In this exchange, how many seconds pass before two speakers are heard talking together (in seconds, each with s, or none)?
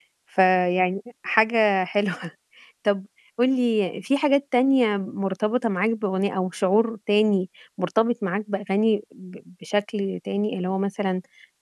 none